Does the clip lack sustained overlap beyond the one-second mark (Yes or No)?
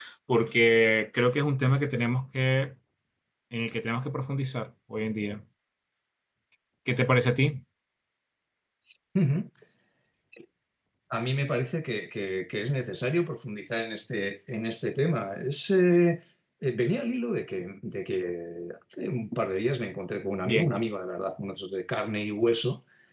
Yes